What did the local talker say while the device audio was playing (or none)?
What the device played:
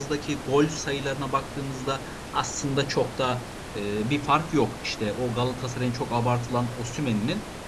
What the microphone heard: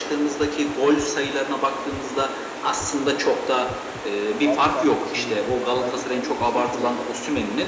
Abi sen şimdi bence komik bir şey söyledin.